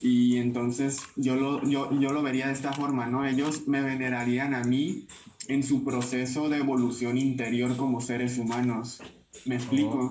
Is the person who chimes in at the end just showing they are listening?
No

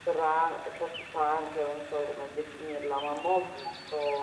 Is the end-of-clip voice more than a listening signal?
No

